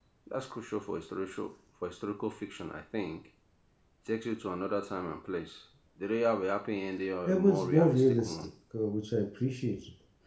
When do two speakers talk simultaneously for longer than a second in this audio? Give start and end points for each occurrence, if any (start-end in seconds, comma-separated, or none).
7.3-8.5